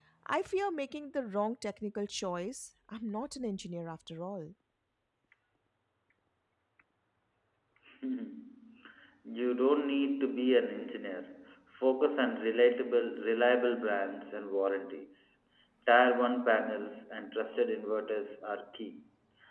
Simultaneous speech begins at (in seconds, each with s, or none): none